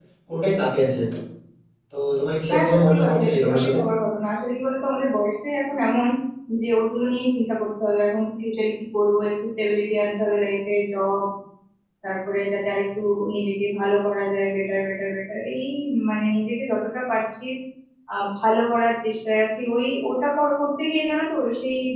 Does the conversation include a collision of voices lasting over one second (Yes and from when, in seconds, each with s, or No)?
Yes, from 2.5 s